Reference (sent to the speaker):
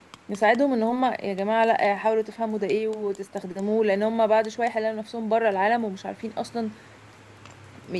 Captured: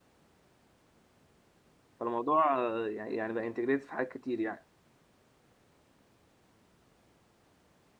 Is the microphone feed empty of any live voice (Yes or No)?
No